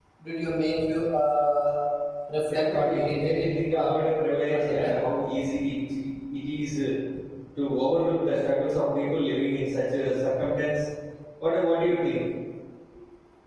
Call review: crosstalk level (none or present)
present